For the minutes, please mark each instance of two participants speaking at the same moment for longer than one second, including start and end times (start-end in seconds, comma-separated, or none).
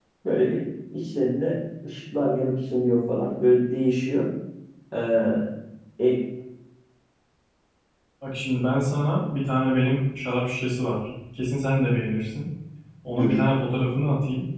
none